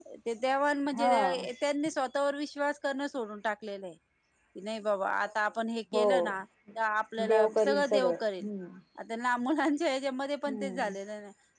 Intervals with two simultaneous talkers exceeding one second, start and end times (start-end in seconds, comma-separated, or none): 7.2-8.5